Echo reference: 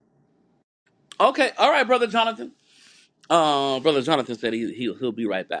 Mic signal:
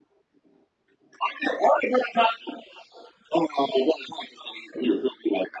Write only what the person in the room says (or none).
none